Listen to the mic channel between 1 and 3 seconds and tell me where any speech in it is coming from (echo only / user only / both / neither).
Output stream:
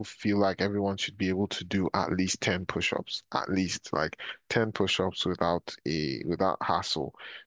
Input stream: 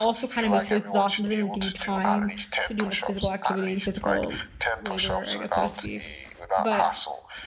both